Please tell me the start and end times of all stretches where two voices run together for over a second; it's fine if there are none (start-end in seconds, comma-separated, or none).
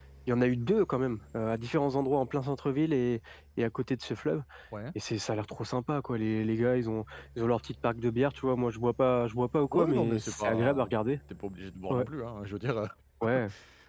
9.7-10.9